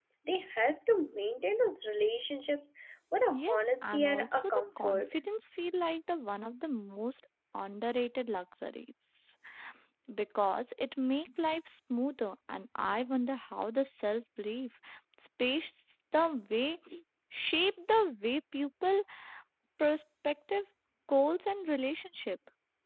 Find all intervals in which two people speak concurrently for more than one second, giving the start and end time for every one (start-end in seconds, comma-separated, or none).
3.3-5.1